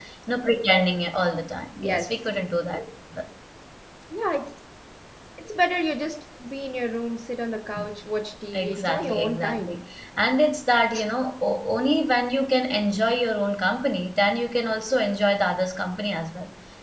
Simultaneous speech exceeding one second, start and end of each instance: 8.5-9.8

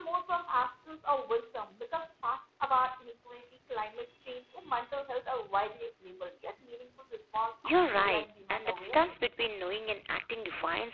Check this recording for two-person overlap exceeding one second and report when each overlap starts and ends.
7.6-9.1

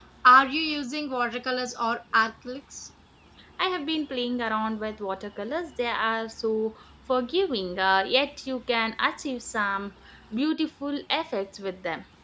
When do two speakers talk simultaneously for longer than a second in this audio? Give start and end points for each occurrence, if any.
none

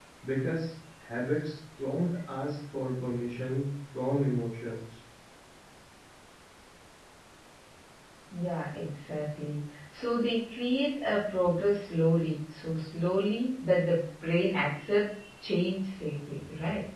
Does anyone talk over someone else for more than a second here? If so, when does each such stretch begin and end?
none

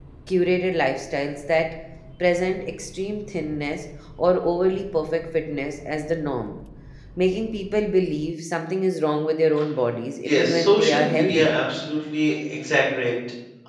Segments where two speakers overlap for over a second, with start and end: 10.2-11.5

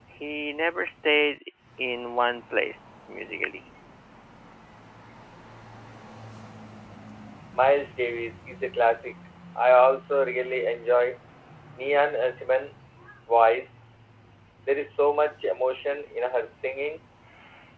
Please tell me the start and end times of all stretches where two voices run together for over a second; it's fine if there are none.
none

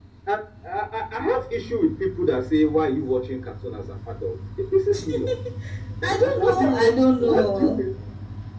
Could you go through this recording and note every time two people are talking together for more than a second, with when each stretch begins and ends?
6.0-7.8

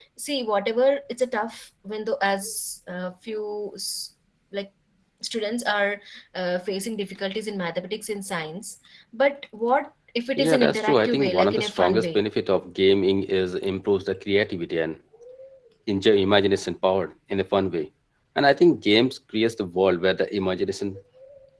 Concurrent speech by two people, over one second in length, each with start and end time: 10.4-12.2

